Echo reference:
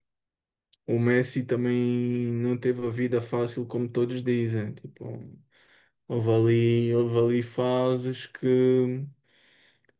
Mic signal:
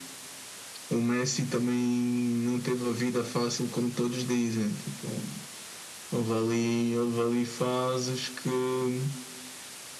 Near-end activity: none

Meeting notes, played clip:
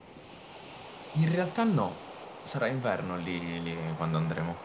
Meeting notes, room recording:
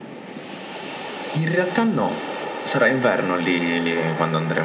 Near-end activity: none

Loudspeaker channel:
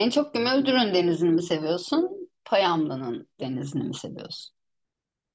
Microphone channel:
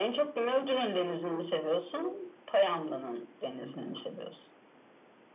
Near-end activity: none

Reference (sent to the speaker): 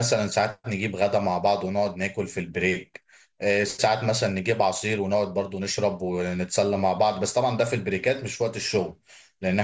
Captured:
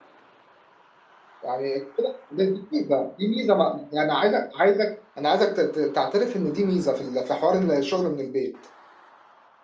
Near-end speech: present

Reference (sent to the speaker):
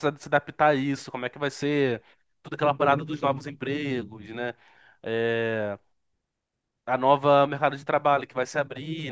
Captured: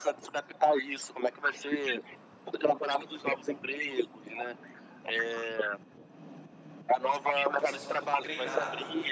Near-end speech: present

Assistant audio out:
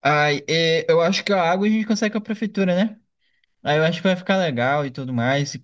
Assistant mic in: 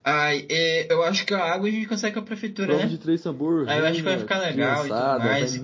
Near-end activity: present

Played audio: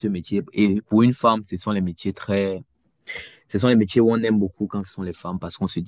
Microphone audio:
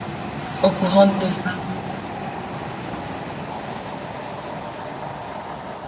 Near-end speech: present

